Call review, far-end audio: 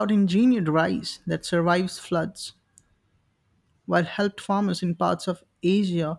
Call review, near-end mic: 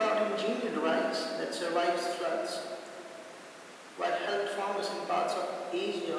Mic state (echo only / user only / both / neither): echo only